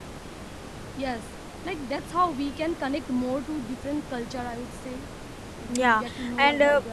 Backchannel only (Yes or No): No